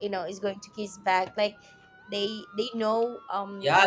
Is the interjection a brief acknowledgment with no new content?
No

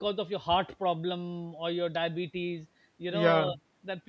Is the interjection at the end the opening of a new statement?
No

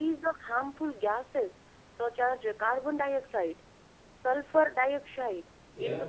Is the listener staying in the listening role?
Yes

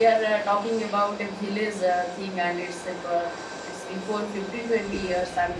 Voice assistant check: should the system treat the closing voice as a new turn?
No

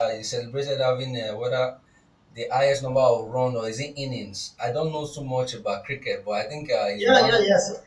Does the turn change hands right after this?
Yes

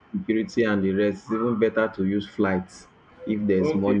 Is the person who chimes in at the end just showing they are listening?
No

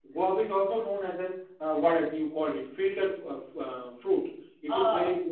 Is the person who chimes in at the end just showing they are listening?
Yes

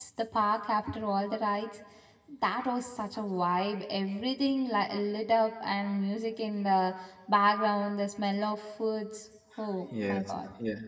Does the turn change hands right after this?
Yes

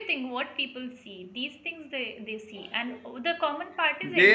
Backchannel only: No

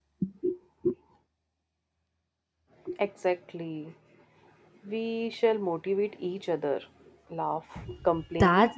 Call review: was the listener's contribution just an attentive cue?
No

